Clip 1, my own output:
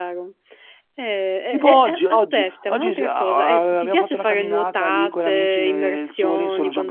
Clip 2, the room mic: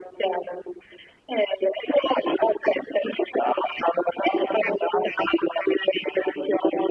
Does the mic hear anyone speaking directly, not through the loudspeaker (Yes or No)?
No